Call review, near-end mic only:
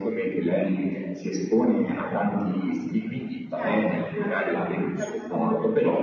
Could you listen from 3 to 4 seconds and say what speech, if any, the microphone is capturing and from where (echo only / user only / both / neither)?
echo only